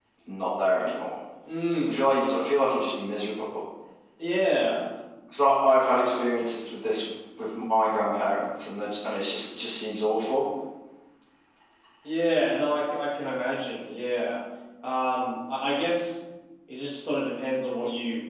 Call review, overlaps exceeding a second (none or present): none